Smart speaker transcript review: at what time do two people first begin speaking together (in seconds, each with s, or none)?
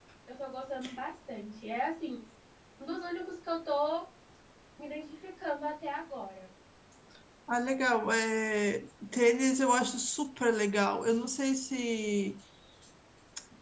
none